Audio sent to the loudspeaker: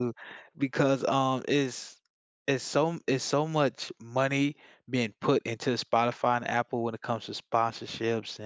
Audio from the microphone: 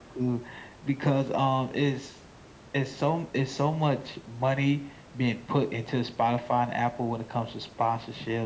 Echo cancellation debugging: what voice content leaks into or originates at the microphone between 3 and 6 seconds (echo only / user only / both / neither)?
echo only